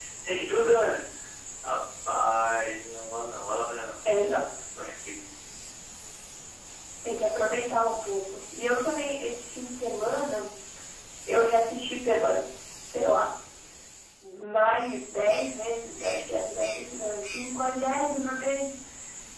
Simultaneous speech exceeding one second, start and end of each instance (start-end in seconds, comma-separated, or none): none